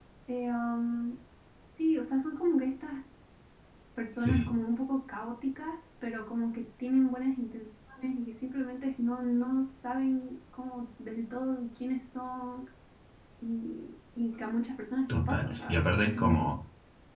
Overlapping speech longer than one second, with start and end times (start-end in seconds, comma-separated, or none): 15.1-16.5